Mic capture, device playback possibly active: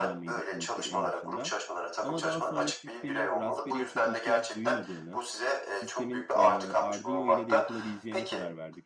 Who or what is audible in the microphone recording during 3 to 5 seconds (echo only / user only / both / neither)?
both